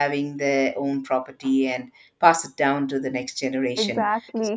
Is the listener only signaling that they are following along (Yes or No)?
Yes